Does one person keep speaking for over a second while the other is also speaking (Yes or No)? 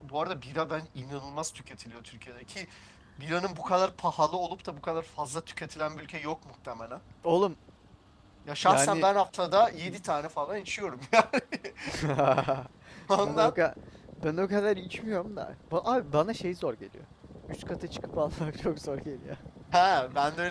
No